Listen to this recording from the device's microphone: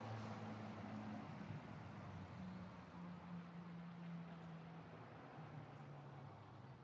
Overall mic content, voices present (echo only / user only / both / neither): neither